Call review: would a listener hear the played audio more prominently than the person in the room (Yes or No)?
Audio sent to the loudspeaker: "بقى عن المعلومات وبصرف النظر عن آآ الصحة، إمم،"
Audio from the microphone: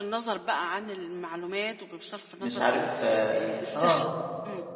No